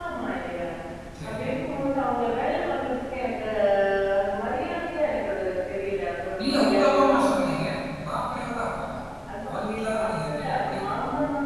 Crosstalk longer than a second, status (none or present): present